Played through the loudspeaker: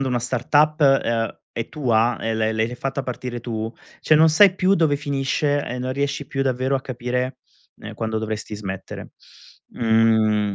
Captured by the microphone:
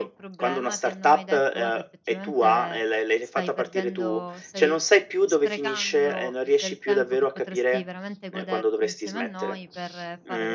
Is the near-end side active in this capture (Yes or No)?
Yes